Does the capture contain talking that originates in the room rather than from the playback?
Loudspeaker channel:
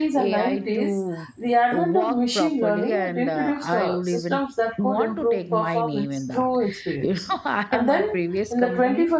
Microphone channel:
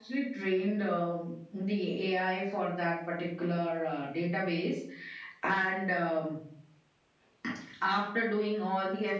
Yes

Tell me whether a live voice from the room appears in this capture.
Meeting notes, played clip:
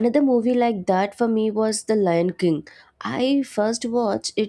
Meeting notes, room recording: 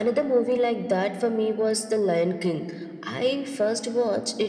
No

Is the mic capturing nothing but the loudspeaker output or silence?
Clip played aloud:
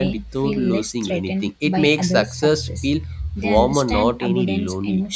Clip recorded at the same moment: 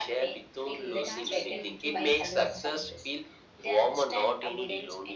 No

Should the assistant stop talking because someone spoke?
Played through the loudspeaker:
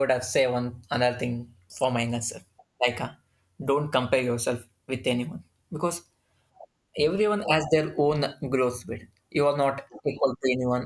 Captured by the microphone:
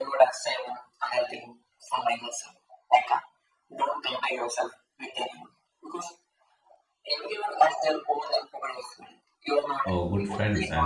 Yes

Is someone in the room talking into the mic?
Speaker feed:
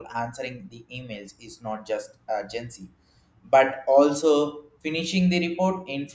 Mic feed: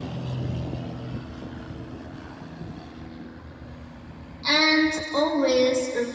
Yes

